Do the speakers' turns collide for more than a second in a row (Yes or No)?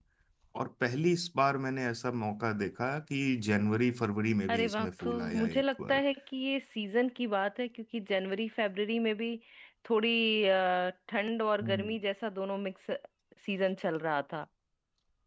Yes